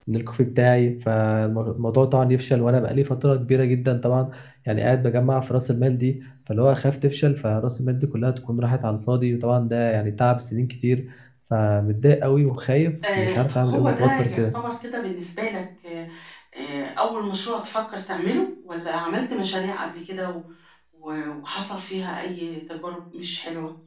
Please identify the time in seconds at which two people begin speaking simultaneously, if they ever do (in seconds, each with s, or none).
13.0 s